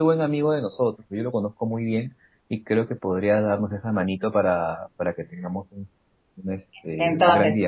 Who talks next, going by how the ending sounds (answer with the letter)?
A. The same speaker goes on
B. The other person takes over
B